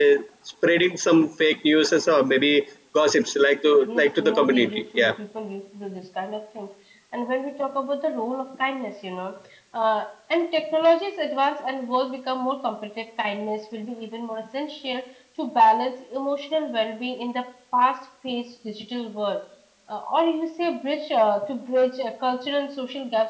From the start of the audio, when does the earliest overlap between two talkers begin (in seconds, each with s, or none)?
3.9 s